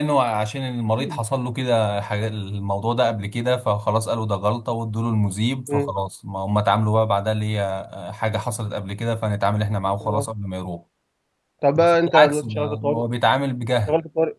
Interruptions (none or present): present